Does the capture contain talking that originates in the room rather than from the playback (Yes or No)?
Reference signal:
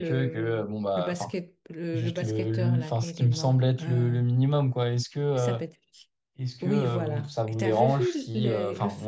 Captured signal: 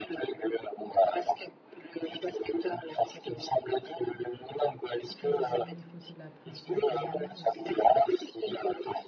Yes